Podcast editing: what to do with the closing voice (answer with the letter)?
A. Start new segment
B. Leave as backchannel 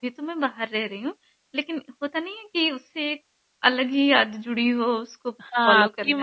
A